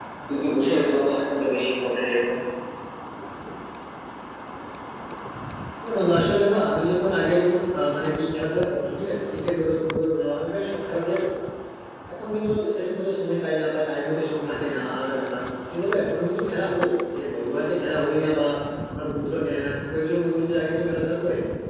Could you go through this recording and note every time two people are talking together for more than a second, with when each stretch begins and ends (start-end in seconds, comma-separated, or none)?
none